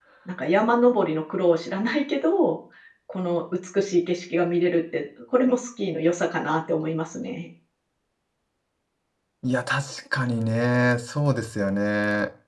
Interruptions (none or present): none